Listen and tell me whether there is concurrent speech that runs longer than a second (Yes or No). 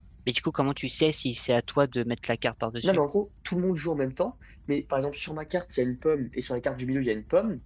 No